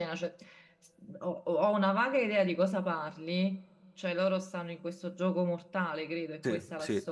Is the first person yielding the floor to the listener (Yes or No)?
Yes